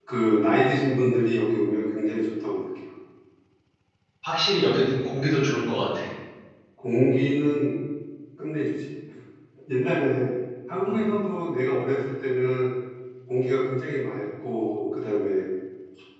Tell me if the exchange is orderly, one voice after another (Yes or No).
Yes